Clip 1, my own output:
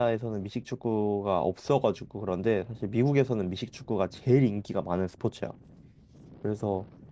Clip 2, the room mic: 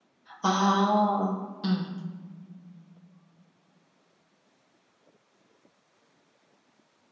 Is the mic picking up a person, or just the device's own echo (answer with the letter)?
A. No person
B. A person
B